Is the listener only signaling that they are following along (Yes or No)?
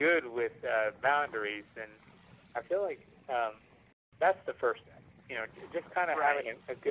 Yes